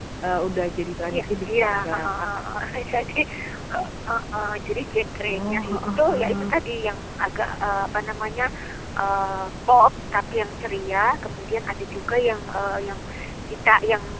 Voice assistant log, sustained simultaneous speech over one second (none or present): present